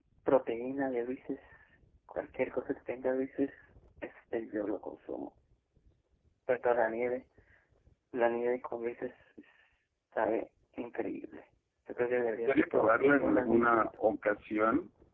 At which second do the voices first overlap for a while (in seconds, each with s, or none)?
12.5 s